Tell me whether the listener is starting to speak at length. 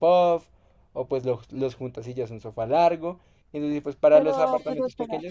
Yes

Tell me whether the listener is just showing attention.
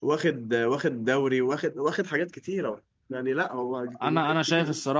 No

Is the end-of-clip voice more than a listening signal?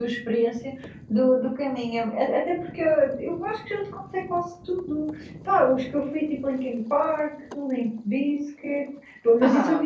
No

